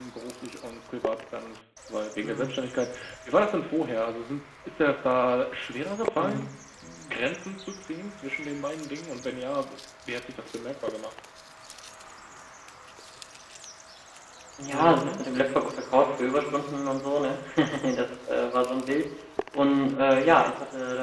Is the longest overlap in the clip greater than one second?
No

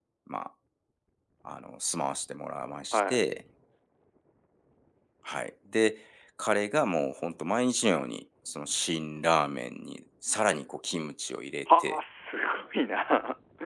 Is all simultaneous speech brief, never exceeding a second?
Yes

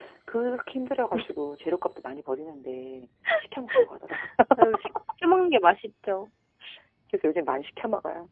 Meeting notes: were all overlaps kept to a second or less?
Yes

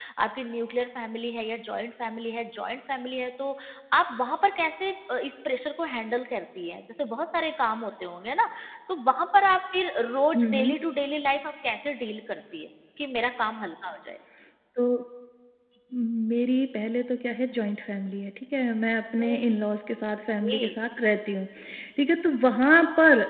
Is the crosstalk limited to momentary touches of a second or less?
Yes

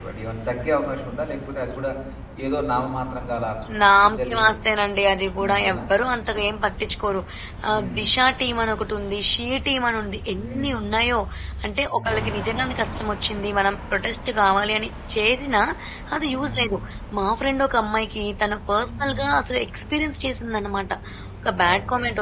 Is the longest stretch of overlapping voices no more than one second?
Yes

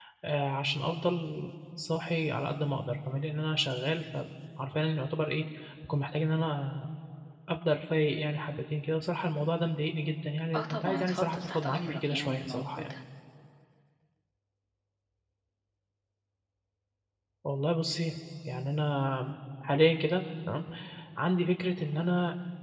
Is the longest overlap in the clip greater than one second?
Yes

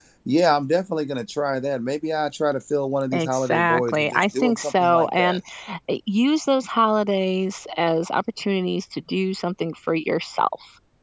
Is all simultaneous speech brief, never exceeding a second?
No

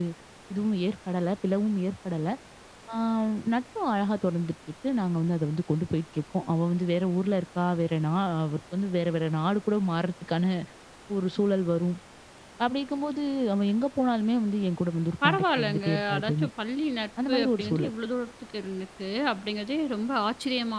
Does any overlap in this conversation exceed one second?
Yes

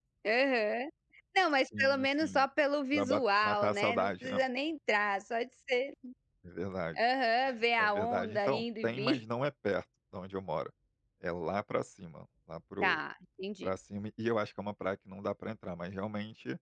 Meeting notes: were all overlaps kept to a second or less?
No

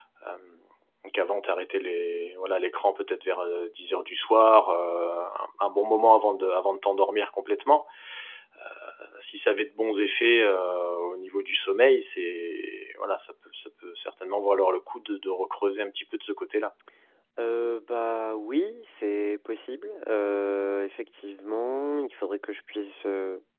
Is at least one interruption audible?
No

